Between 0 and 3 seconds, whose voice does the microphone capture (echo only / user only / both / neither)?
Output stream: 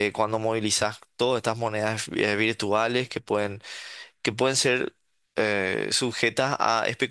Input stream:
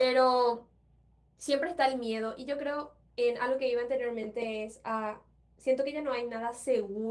user only